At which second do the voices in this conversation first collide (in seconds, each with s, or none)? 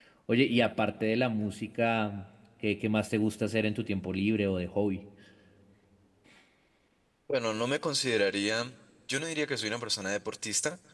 none